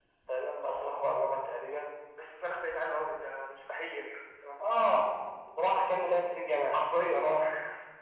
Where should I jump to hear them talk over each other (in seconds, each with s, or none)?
none